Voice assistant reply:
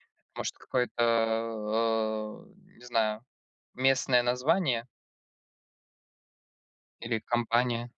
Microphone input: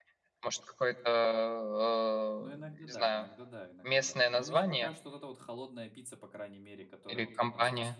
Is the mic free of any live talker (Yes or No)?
No